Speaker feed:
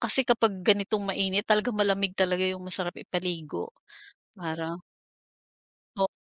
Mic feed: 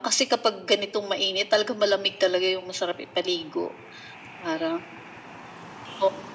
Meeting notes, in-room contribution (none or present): none